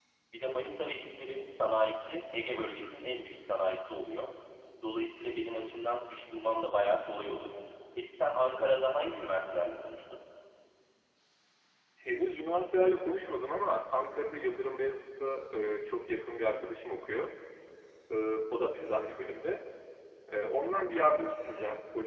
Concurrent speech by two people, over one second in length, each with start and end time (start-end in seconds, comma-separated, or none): none